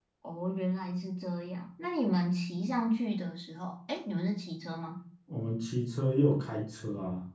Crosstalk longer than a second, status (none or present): none